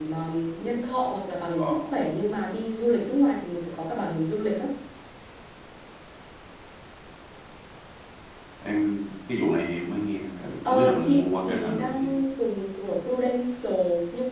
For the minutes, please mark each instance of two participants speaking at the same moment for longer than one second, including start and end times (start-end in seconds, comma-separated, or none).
10.7-12.1